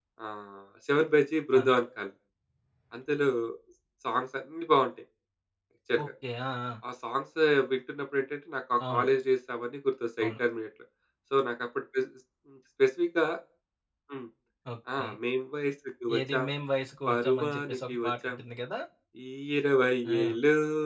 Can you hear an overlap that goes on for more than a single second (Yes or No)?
Yes